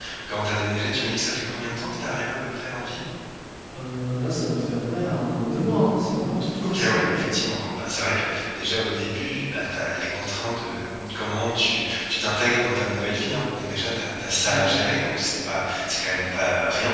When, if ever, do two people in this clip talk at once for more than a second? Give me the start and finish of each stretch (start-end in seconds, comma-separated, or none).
none